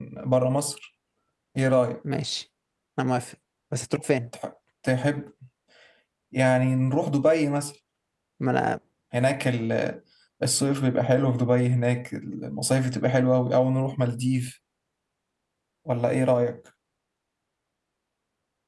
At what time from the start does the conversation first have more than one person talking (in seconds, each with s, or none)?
none